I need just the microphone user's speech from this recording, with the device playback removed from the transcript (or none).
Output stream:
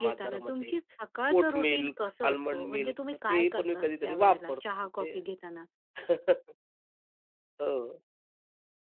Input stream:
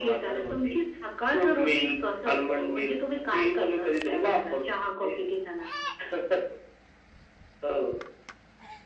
none